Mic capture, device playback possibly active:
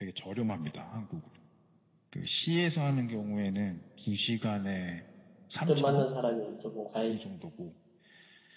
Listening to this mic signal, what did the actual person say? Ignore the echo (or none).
뜻 맞는 사람이 조금 가입